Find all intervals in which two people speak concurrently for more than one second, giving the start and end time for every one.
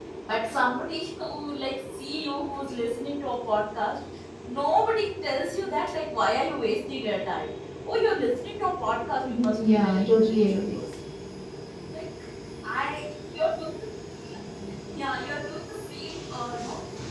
9.2-10.8

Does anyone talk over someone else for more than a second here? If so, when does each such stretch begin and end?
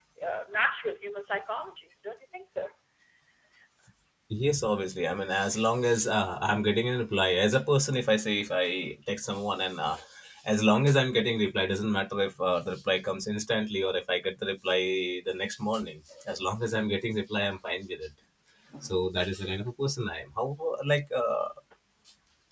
none

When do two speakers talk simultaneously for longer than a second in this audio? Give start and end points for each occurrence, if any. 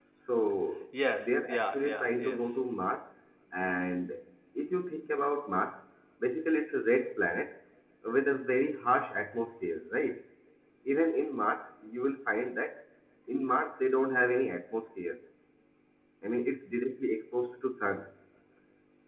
1.2-2.4

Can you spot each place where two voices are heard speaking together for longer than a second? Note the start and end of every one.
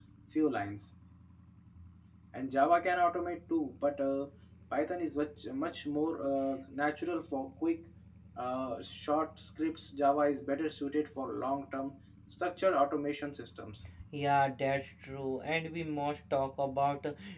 none

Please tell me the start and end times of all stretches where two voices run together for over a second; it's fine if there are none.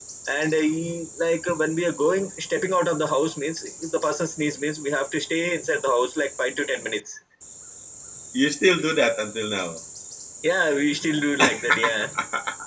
none

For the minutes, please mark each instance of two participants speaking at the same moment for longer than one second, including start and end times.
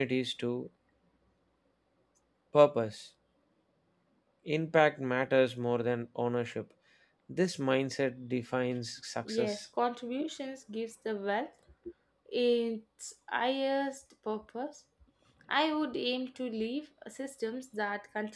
none

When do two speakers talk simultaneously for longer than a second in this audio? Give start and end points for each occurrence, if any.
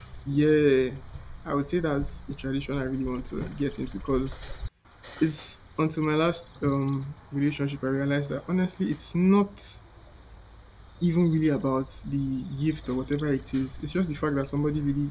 none

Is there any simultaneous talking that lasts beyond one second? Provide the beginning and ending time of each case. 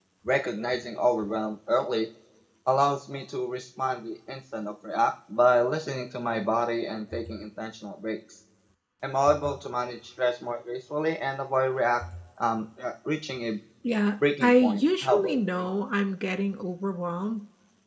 14.4-15.7

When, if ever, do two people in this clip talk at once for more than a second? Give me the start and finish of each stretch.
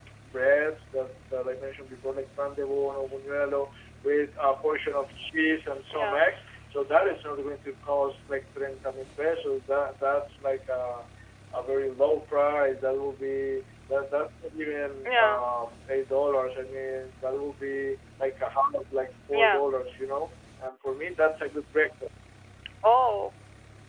none

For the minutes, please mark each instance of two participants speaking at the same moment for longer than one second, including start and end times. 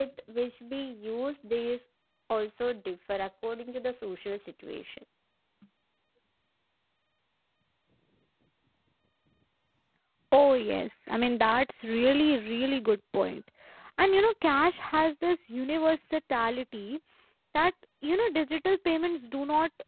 none

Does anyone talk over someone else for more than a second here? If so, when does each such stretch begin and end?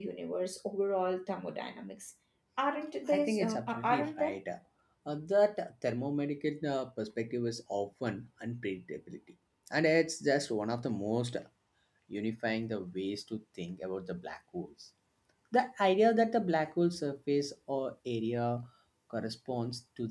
3.1-4.4

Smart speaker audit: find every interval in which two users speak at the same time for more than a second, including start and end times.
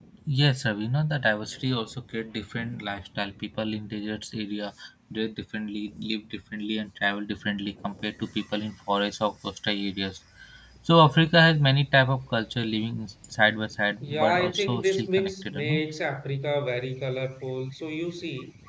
14.0-15.8

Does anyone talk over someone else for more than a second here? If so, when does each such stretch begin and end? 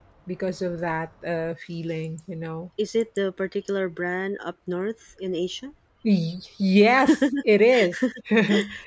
none

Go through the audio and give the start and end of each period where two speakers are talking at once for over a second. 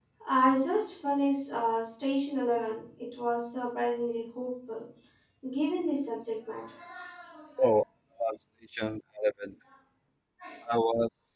none

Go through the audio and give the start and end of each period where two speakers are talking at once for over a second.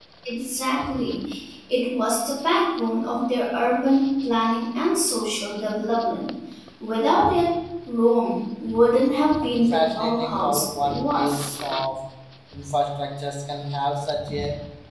9.4-11.4

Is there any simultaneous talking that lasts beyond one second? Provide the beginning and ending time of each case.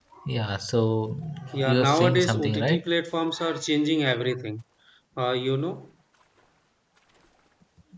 1.6-2.9

